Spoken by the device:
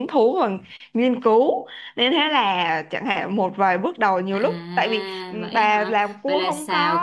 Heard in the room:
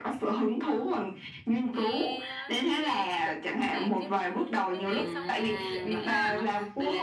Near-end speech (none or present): present